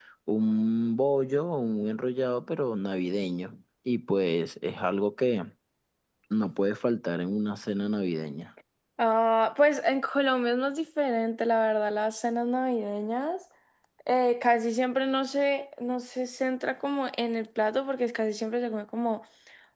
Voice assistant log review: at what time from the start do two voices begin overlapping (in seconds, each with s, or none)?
none